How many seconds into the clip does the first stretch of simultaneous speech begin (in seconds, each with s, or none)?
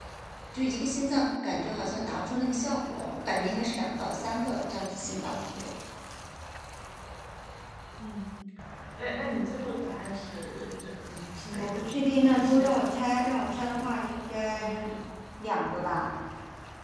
11.5 s